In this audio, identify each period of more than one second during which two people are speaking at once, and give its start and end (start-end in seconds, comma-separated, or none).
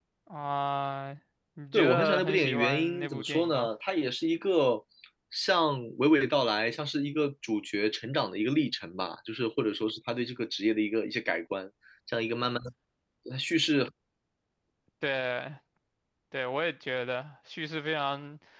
1.7-3.7